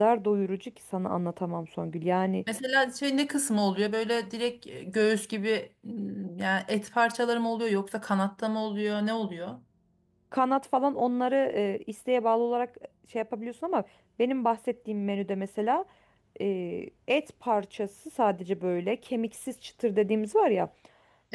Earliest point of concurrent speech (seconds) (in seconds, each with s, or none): none